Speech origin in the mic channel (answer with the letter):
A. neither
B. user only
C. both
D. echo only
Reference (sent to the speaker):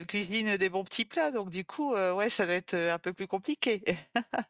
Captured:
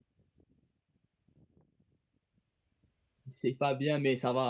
B